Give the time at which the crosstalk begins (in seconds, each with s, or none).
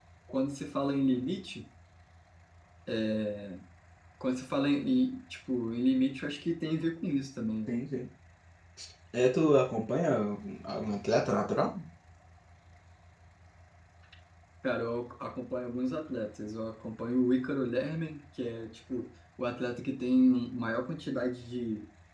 none